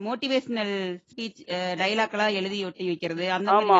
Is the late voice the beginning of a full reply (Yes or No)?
Yes